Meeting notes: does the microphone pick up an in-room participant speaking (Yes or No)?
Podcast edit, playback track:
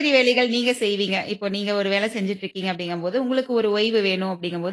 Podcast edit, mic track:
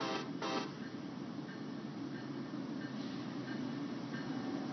No